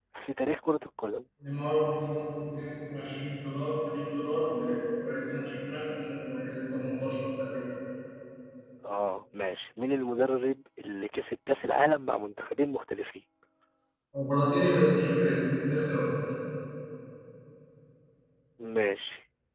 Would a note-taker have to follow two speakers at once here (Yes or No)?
No